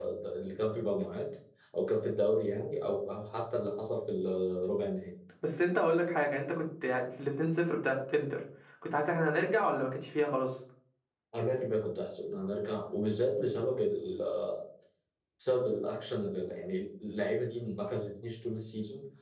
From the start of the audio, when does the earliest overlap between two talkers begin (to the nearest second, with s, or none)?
none